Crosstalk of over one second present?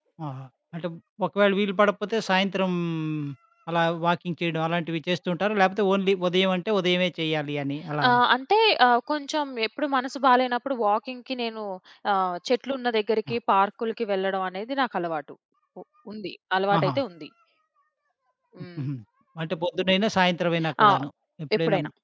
No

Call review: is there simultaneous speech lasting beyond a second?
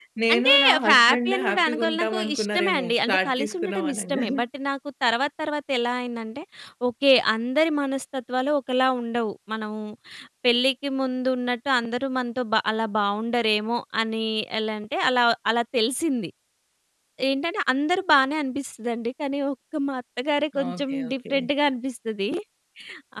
Yes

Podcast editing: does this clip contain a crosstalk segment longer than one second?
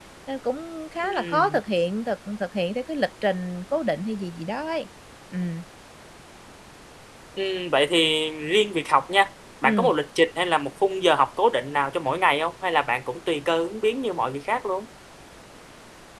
No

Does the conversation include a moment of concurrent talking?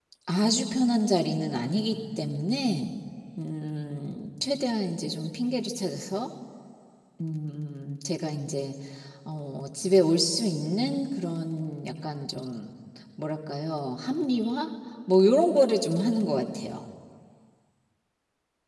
No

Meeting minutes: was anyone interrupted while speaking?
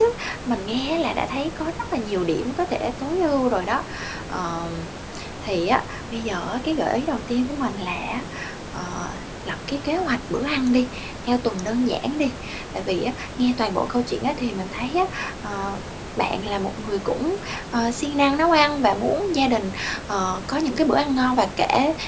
No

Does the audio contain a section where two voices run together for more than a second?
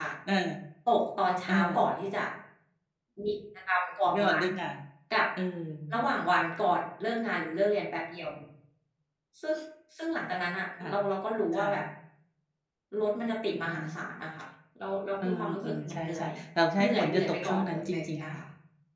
Yes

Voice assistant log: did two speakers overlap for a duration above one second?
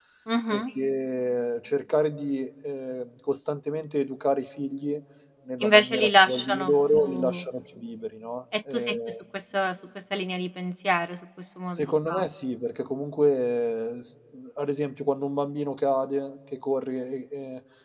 Yes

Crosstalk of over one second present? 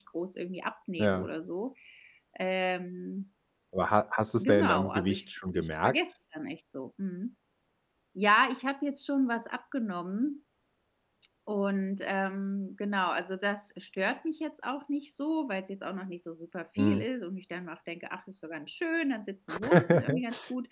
Yes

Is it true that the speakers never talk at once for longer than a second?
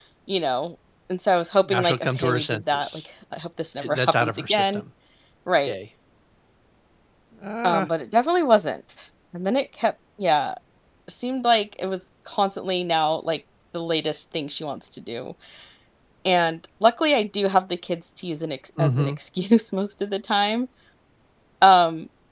No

